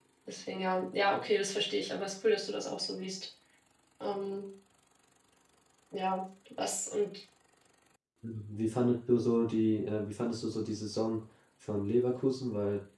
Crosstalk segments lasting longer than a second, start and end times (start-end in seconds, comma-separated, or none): none